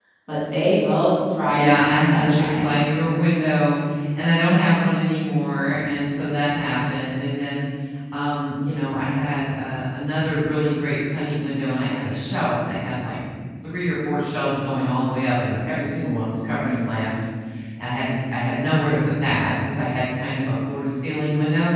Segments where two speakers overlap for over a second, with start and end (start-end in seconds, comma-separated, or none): 1.5-2.7